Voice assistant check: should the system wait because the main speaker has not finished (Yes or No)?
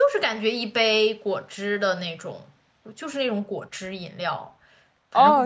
No